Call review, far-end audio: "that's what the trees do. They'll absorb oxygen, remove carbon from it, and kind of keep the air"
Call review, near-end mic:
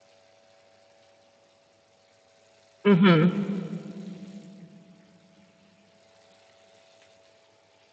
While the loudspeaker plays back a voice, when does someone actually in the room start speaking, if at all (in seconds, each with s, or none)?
2.8 s